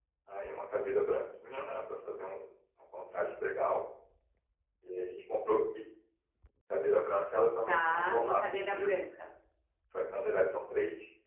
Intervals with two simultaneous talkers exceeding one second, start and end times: 7.7-8.9

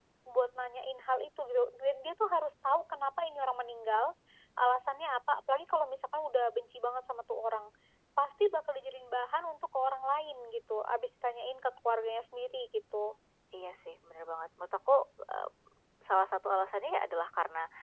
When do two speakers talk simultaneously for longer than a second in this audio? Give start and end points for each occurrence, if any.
none

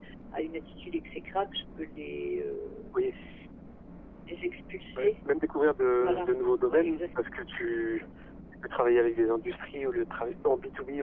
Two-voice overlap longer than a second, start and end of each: none

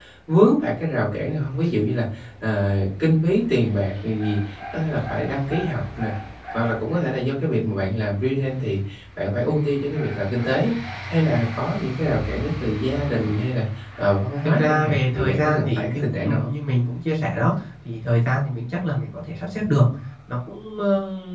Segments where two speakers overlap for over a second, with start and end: 14.6-16.5

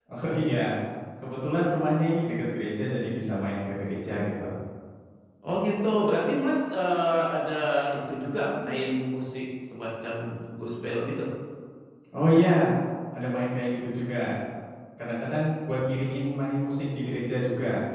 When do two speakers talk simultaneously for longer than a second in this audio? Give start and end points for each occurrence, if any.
none

